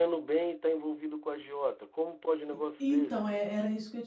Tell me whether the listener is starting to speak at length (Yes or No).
Yes